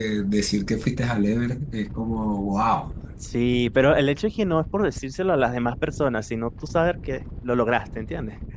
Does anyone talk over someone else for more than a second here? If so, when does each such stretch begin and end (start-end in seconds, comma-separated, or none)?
none